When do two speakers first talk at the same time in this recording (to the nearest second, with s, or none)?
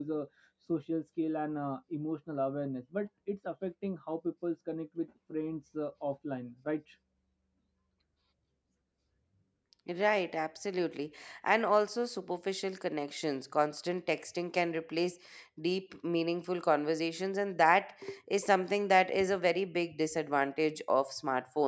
none